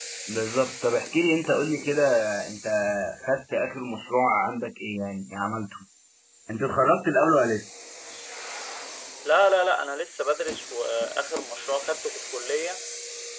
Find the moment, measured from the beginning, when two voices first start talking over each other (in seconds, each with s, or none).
none